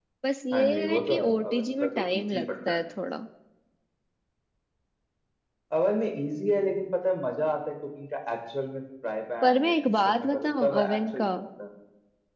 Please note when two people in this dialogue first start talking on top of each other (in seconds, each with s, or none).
0.5 s